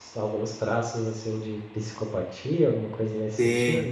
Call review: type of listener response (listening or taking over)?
taking over